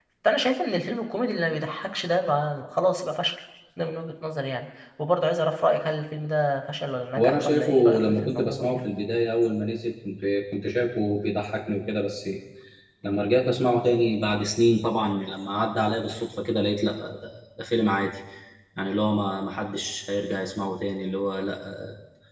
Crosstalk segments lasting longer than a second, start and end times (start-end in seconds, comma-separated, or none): 7.1-8.8